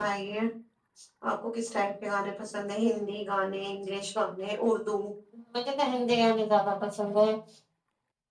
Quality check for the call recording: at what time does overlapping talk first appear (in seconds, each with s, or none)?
none